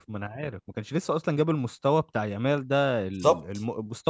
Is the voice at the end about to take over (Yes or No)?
No